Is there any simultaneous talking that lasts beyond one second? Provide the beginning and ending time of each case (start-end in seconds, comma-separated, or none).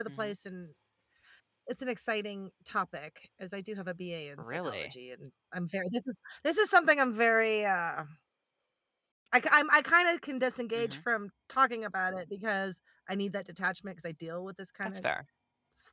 none